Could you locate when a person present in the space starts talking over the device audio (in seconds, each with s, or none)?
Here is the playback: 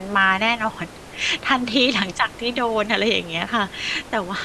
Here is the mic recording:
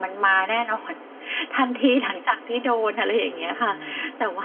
3.2 s